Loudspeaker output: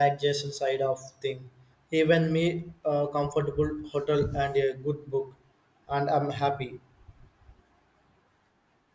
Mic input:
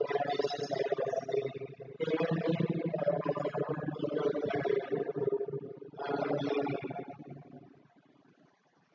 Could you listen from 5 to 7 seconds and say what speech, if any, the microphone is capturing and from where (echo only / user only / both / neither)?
echo only